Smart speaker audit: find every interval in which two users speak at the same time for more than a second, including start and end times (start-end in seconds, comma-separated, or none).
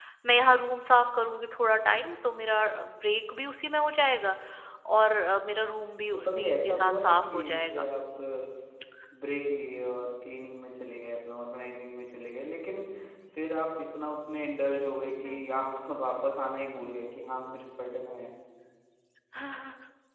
6.1-7.8